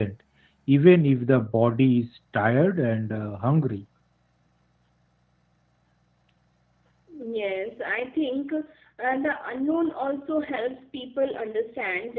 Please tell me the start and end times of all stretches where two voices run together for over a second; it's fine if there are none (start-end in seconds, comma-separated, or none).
none